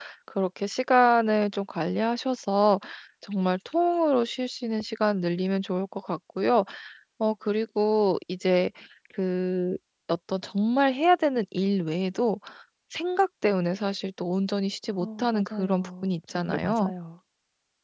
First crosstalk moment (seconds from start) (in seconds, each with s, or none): 15.0 s